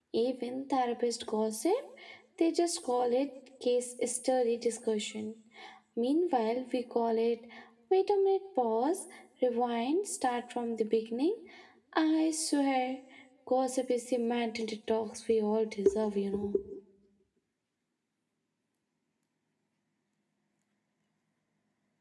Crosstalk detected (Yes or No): No